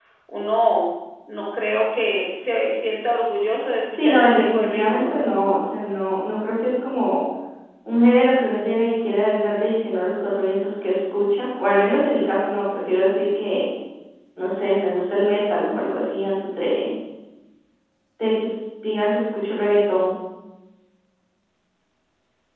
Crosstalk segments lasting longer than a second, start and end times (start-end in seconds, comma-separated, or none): 4.0-5.3